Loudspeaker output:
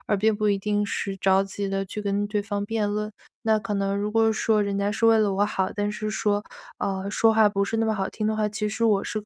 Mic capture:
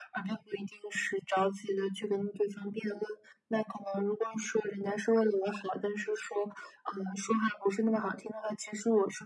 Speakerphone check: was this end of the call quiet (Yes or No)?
Yes